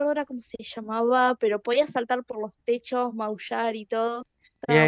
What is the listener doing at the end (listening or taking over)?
taking over